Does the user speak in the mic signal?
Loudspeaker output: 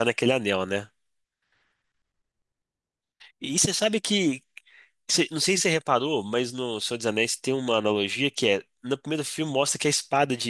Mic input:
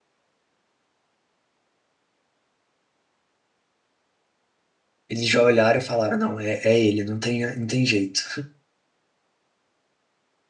Yes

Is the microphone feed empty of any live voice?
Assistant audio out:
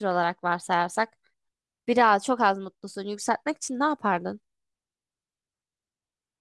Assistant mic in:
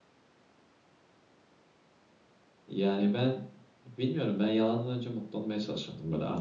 No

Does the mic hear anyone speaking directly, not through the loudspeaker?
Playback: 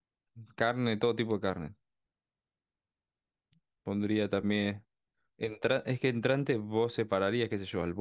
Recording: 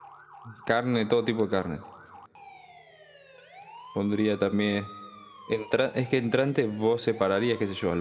No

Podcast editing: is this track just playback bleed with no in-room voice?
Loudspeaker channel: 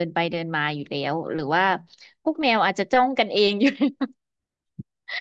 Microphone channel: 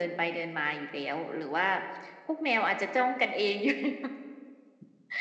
Yes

